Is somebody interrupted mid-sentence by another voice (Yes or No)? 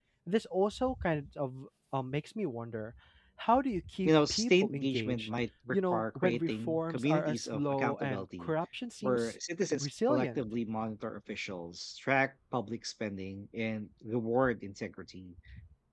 Yes